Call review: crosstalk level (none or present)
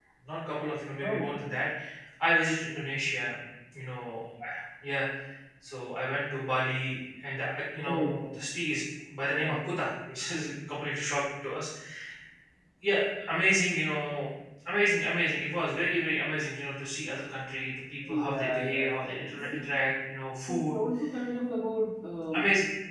present